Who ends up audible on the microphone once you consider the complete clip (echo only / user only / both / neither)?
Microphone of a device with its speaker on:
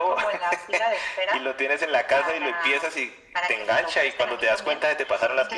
echo only